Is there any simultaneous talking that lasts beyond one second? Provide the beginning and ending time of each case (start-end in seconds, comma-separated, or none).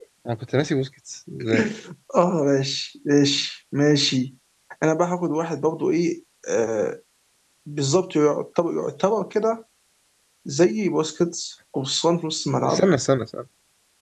none